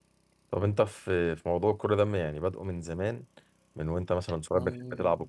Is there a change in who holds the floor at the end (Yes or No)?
No